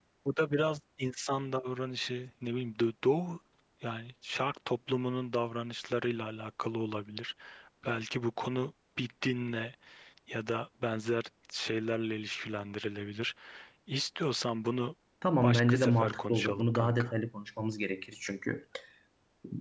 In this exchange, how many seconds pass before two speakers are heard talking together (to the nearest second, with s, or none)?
15 s